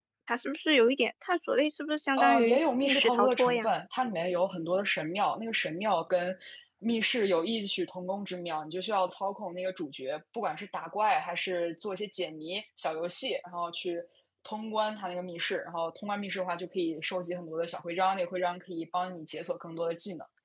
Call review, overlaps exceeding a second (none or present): present